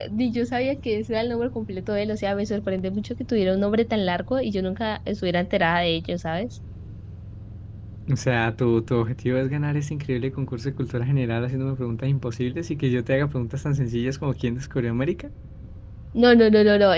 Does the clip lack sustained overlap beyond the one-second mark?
Yes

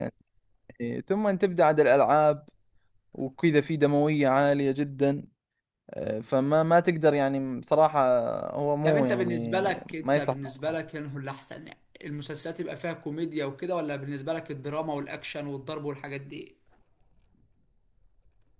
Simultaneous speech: Yes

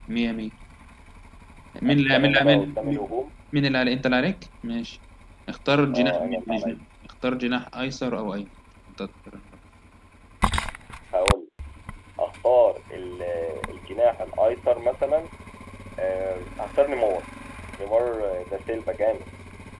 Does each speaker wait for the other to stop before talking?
No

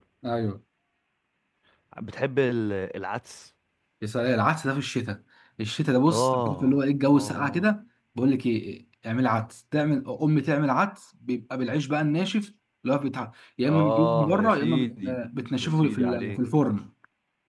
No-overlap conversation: No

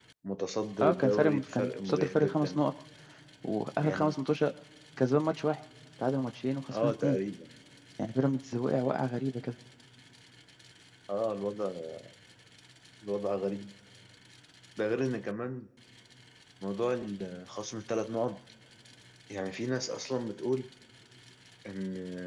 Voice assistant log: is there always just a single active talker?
No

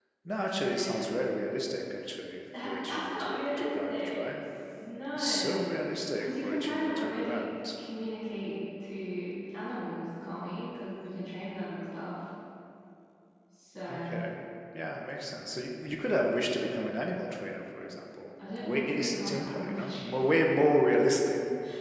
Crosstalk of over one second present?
Yes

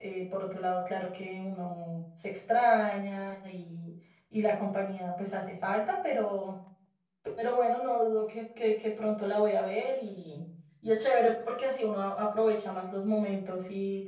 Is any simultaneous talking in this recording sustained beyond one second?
No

